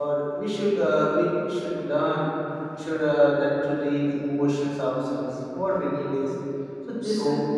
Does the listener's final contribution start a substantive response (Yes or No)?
No